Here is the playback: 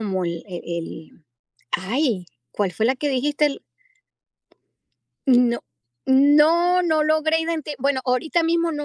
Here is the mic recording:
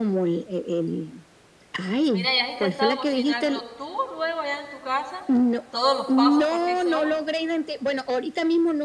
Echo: present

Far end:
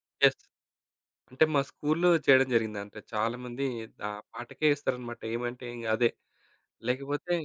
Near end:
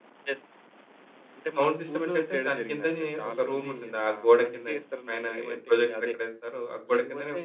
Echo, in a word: present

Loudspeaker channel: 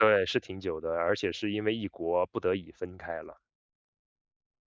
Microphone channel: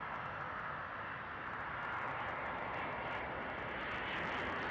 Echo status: none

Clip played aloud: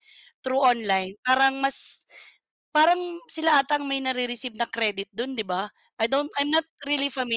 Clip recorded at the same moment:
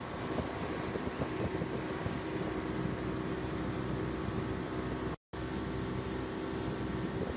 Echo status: none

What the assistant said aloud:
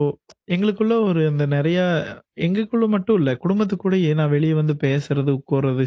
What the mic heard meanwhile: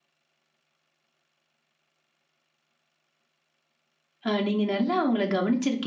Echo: none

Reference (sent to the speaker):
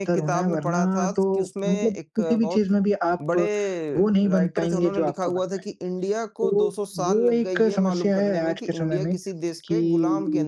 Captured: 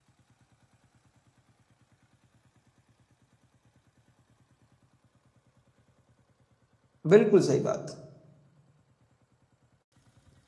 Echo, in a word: none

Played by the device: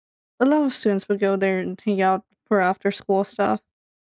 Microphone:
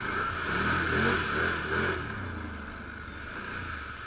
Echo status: none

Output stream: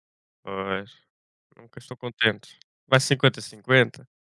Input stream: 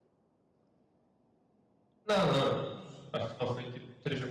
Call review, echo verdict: none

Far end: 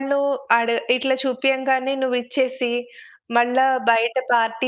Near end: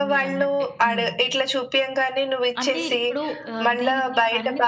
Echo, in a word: present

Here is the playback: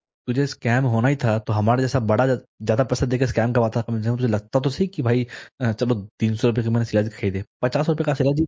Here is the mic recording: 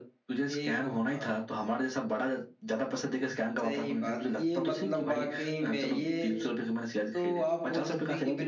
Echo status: present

